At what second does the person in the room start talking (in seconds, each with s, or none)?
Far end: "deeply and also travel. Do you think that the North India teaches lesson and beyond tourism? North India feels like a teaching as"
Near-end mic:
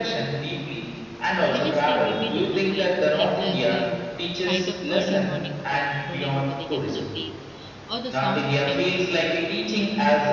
1.4 s